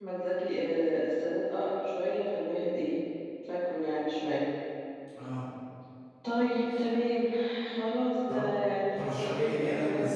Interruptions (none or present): present